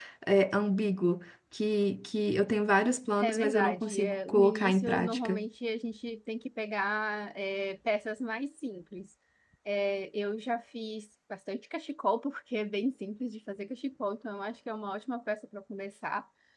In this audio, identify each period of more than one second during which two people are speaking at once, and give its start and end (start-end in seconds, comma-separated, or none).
3.2-5.4